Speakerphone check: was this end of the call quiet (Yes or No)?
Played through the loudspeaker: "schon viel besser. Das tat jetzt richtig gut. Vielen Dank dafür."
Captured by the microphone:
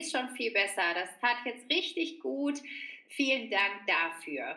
Yes